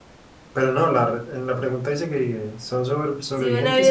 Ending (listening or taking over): taking over